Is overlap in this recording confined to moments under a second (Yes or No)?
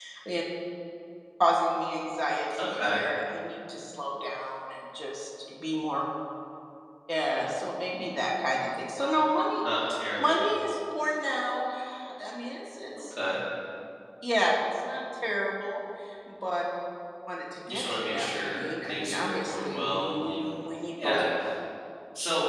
No